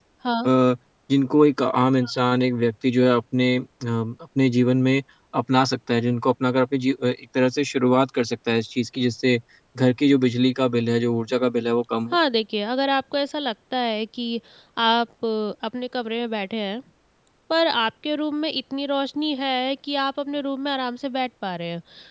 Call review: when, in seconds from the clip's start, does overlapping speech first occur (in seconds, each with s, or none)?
none